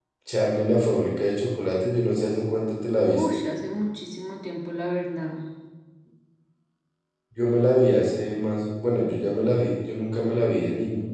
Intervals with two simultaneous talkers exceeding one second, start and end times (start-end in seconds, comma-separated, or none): none